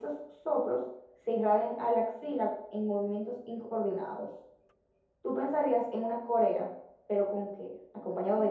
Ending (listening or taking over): taking over